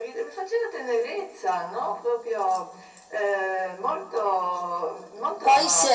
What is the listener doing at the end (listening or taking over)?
taking over